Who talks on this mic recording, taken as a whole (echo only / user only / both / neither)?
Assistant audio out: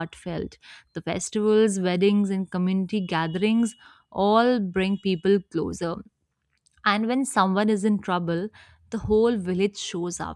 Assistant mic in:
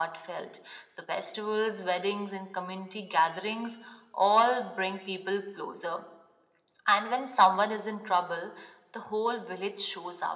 echo only